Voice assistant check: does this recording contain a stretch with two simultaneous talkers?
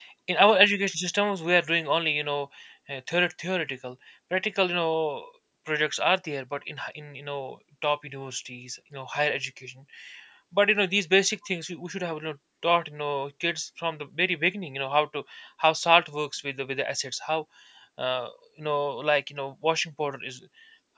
No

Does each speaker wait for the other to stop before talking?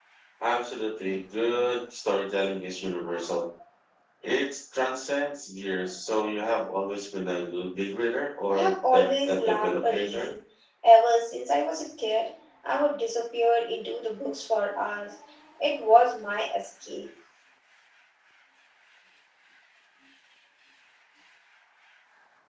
No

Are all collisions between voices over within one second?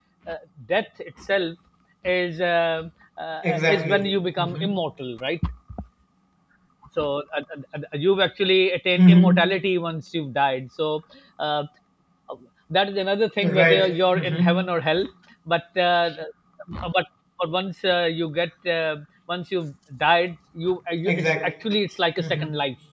No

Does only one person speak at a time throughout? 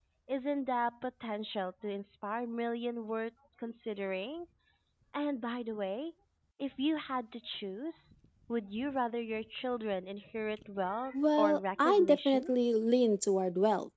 No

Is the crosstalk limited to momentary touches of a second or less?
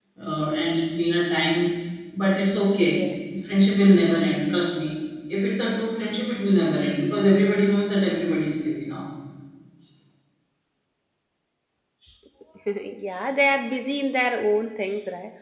Yes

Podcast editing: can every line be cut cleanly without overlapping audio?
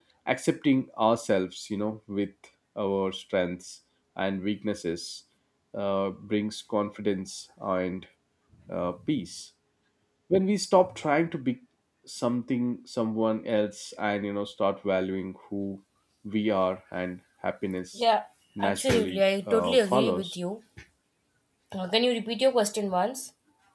No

